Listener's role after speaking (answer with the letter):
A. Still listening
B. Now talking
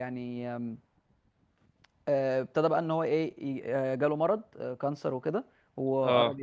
A